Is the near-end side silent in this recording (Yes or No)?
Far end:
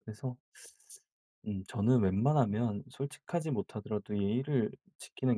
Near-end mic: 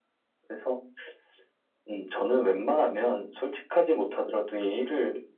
Yes